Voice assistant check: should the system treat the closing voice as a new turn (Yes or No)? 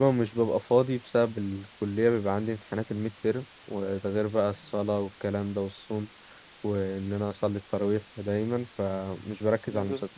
No